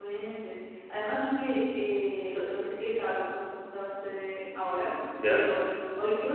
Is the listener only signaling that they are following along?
Yes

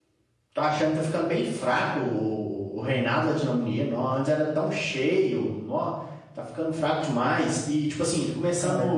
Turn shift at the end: No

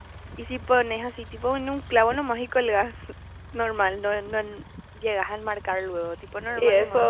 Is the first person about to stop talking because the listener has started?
Yes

